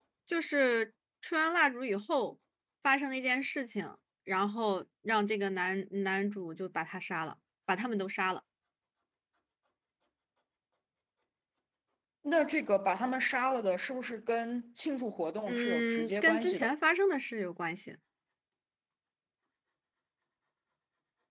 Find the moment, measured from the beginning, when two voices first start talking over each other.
15.5 s

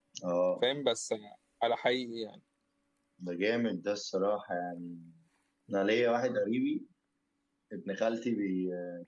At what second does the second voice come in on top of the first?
none

